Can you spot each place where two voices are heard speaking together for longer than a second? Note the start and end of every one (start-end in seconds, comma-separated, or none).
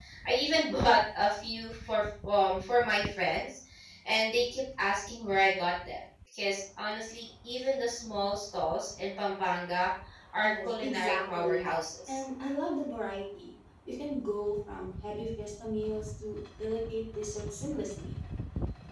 10.4-11.7